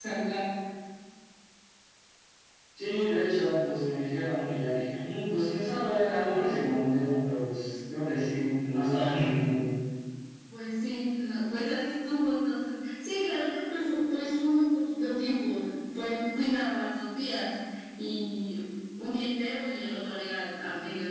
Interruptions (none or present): none